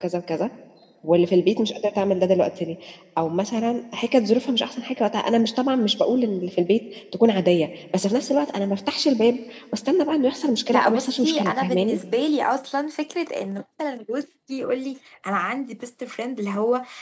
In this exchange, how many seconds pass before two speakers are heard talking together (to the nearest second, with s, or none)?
11 s